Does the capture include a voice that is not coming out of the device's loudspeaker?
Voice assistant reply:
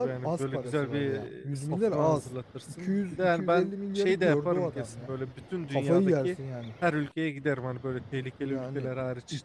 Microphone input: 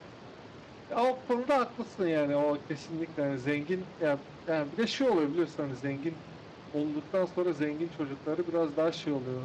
Yes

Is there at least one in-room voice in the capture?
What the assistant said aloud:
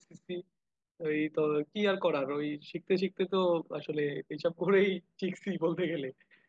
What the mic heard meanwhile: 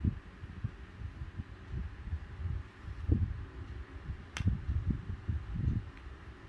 No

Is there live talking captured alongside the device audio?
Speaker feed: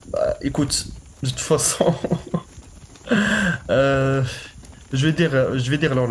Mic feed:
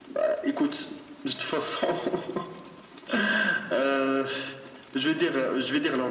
No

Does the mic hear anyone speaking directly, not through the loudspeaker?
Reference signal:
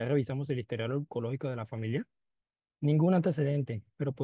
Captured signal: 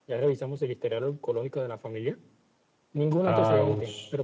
Yes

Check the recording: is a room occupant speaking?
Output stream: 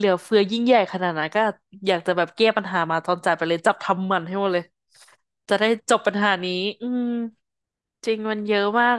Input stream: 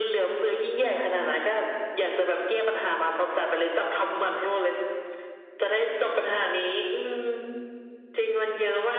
No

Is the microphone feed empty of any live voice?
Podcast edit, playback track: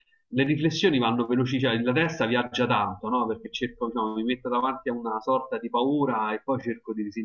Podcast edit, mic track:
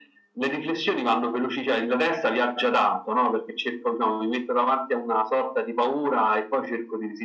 Yes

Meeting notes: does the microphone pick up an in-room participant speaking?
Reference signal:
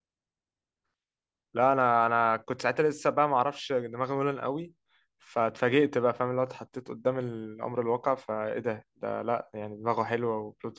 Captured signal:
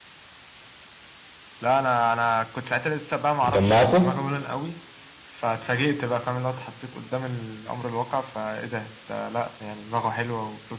Yes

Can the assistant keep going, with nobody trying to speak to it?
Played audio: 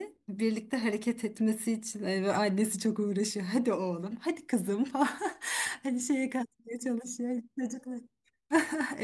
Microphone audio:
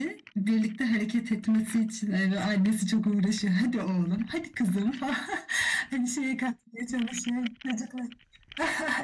Yes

